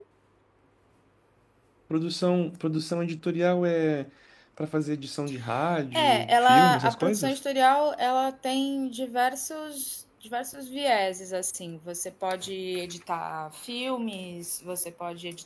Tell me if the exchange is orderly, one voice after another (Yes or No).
No